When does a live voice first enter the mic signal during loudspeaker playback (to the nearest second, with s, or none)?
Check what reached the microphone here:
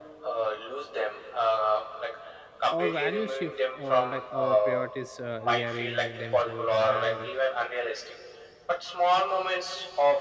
3 s